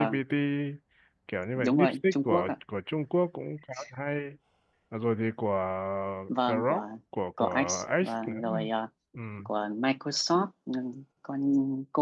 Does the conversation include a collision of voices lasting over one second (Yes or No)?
Yes